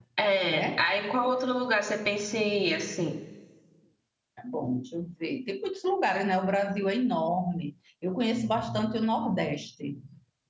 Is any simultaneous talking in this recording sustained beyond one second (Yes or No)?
No